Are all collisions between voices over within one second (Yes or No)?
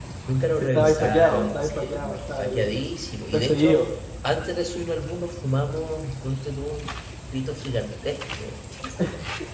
No